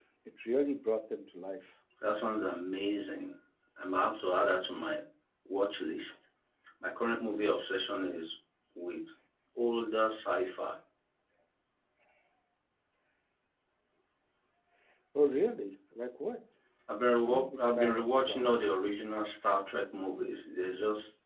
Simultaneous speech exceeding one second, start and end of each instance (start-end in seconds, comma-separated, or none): 17.2-18.8